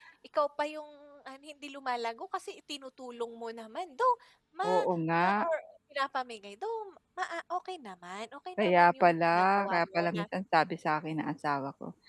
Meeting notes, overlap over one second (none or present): present